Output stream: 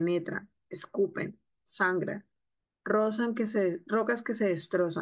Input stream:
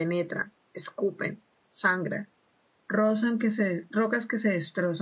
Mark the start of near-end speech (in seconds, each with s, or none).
none